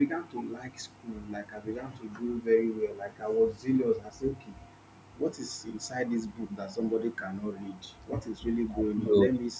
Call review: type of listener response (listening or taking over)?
listening